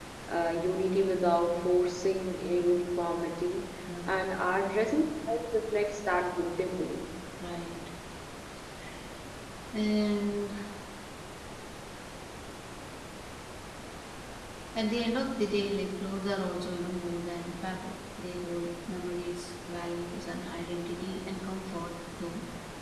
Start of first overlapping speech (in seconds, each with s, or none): none